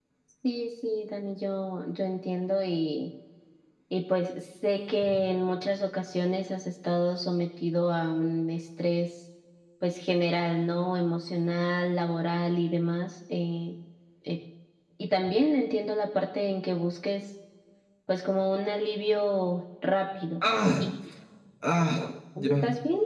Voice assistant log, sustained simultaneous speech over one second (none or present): none